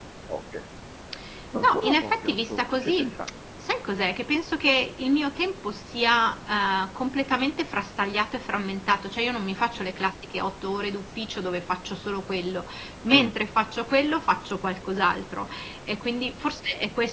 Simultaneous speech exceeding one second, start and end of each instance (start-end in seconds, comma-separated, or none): 1.6-3.1